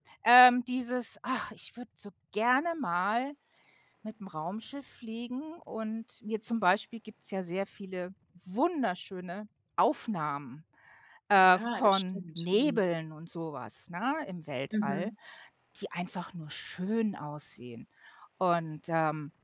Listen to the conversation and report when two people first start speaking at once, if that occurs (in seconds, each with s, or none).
11.4 s